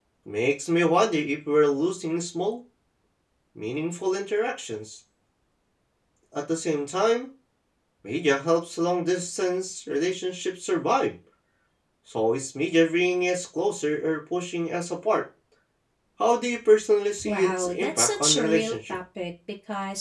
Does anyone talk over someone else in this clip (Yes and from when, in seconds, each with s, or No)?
Yes, from 17.2 s